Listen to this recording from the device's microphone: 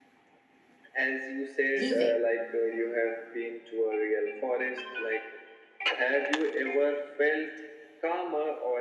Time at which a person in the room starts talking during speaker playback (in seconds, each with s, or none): 1.8 s